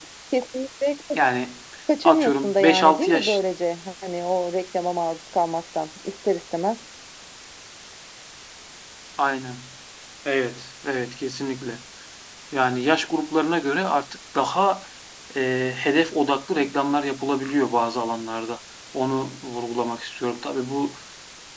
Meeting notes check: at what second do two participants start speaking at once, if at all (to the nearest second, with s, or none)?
2 s